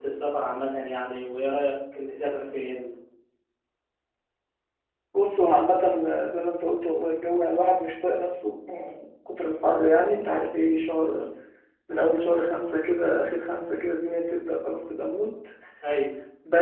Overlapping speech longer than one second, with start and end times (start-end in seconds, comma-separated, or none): none